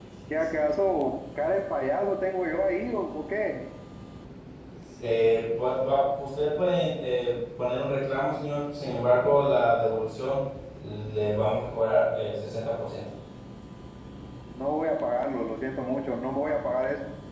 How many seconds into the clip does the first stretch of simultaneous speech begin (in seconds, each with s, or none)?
none